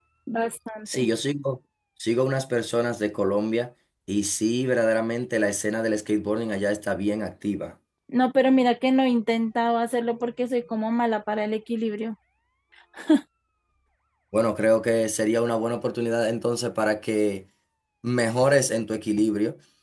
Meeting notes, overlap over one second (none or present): none